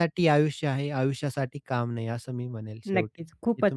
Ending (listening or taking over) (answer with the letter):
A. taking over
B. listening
A